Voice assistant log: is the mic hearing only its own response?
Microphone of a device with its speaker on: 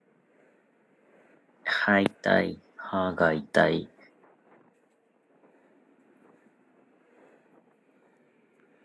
No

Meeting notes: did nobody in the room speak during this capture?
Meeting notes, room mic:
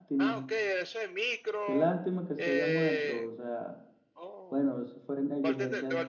No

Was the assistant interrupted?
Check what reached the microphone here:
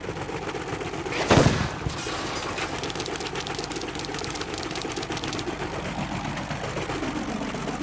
No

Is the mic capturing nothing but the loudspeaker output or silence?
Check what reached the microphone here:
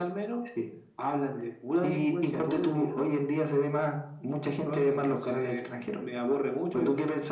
Yes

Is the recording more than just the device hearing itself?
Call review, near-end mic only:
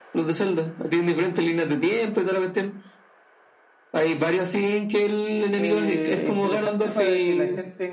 Yes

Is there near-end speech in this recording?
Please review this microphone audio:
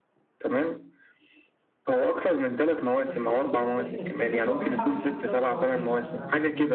Yes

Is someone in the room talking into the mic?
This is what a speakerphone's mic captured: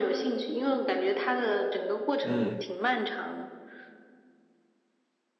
Yes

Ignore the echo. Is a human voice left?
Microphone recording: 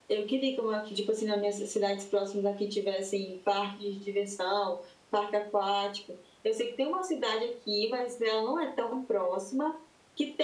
No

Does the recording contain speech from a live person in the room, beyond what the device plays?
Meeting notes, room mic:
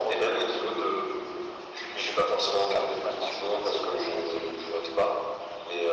No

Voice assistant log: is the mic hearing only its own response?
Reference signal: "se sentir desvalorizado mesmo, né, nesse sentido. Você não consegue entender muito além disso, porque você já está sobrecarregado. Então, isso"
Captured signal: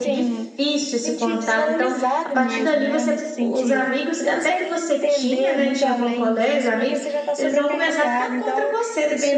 No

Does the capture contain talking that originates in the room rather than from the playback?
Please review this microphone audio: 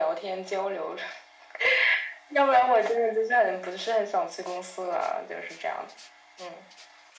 No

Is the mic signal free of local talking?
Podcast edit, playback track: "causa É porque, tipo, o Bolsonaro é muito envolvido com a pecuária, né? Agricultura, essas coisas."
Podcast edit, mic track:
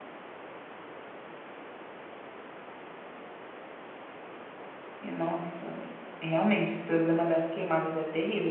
No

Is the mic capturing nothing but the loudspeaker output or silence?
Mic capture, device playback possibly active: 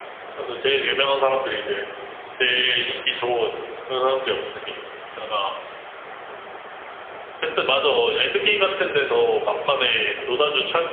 Yes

